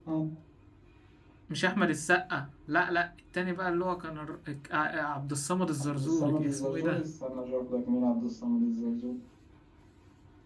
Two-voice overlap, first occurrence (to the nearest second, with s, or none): 6 s